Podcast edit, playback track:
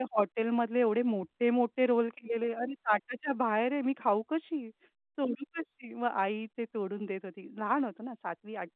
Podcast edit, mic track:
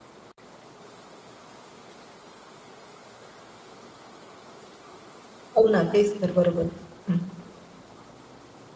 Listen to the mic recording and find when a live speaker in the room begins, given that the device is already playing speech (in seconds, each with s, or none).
5.6 s